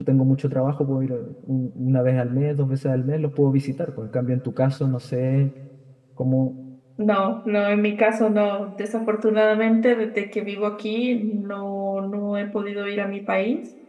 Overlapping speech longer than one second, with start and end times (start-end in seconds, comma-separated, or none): none